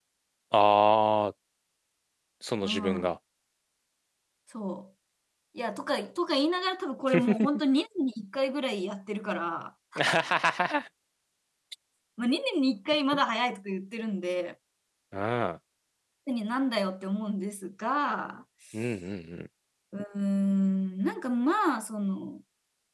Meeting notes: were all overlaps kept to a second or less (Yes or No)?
Yes